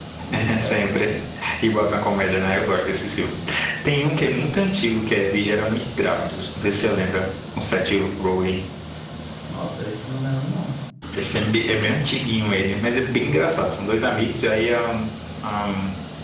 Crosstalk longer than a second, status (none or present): none